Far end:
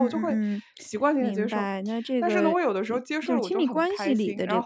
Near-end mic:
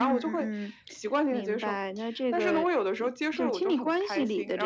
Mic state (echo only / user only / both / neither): echo only